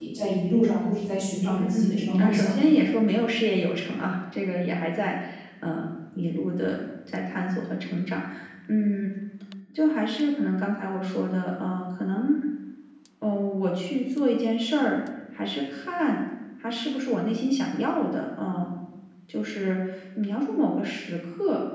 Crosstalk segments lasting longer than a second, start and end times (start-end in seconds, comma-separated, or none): 1.6-2.8